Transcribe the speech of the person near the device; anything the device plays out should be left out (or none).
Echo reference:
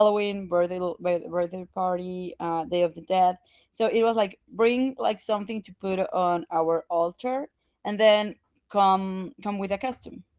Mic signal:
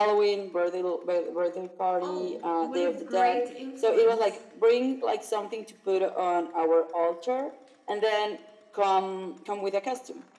oh what a great influence